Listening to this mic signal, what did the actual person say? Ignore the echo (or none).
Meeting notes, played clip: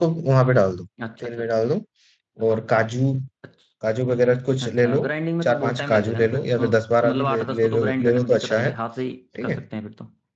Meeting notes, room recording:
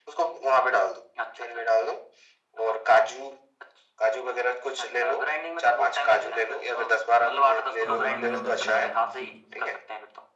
हाँ पानी अब डाल दे रहा हूँ मैं ठीक